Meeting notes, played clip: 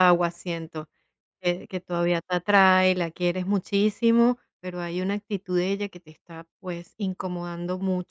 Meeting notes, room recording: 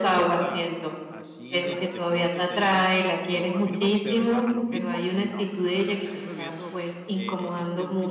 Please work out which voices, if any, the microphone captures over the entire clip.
both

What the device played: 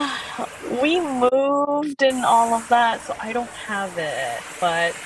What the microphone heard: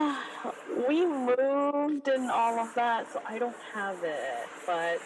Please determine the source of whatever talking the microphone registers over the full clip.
echo only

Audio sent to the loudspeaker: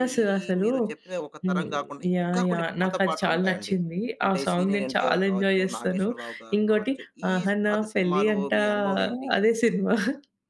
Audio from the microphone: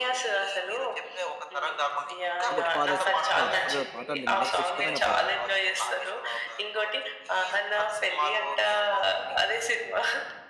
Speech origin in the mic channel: both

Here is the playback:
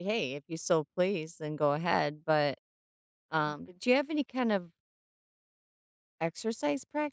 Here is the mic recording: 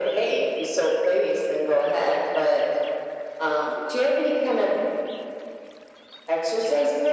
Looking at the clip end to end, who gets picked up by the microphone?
echo only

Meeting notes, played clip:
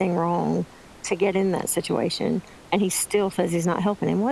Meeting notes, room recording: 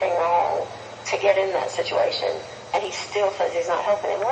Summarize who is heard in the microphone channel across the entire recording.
echo only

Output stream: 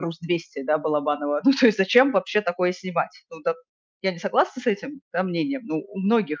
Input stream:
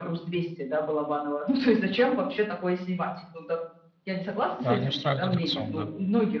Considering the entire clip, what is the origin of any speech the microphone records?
both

